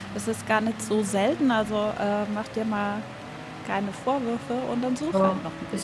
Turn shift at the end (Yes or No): Yes